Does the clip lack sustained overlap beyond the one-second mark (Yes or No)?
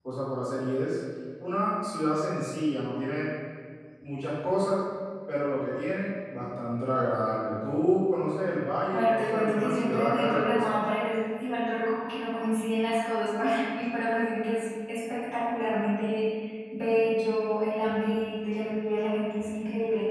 No